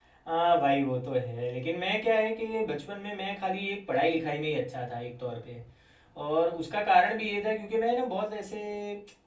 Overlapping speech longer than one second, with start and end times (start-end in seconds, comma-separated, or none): none